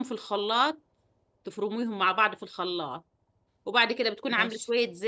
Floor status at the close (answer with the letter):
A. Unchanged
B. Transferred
A